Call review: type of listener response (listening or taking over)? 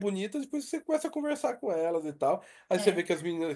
listening